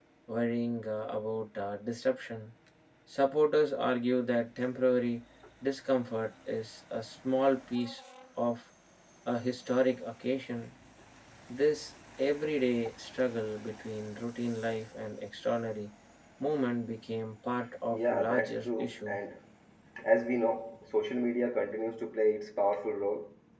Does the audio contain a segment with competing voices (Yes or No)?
Yes